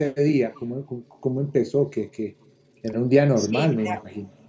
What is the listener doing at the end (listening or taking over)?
taking over